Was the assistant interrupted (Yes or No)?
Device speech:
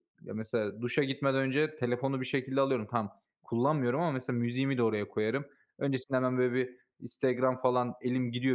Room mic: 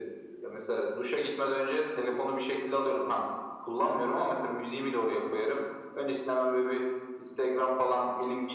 No